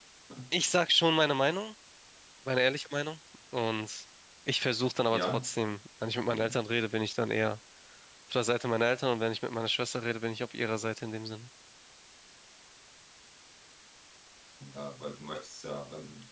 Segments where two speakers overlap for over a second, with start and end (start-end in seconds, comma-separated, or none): none